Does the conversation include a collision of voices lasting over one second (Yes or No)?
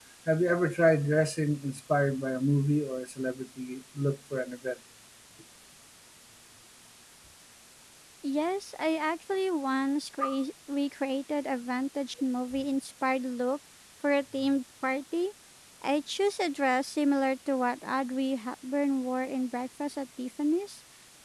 No